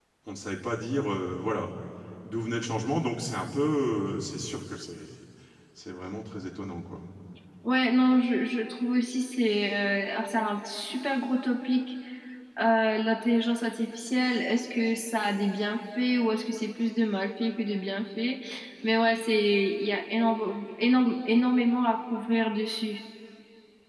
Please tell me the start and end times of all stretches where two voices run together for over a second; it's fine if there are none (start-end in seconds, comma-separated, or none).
none